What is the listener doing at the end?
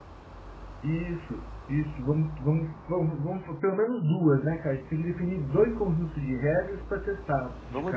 taking over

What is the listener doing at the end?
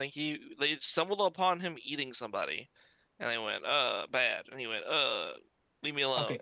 taking over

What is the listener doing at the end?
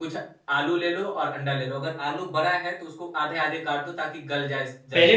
taking over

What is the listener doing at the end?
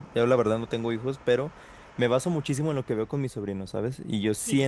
listening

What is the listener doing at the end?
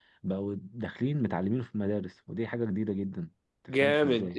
taking over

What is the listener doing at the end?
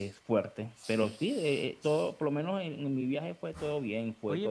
taking over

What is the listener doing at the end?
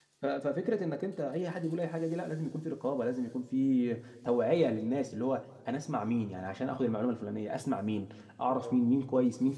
listening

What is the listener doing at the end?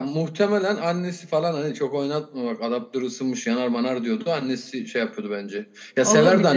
listening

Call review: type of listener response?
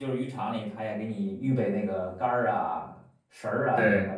listening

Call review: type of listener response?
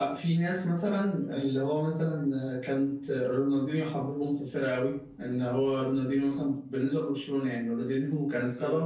listening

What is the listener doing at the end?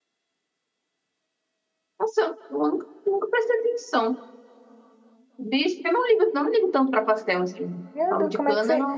taking over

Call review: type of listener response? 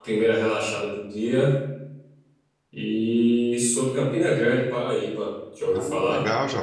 taking over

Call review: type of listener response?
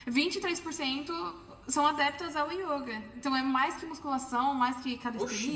taking over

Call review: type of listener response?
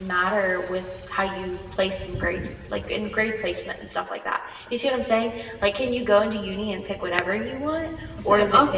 taking over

